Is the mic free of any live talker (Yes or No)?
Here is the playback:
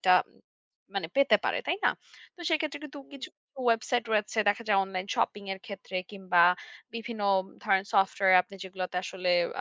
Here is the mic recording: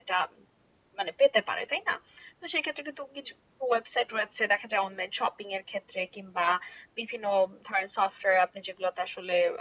Yes